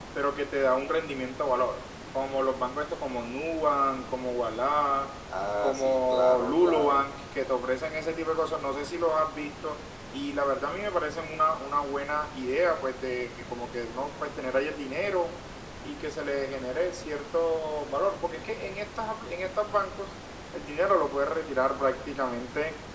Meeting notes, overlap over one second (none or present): present